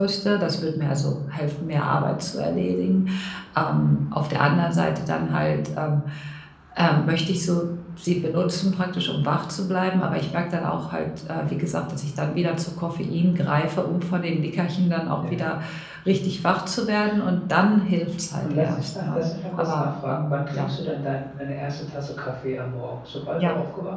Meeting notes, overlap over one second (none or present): present